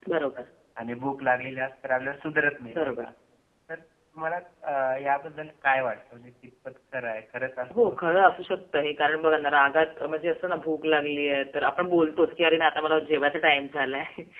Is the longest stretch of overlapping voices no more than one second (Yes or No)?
Yes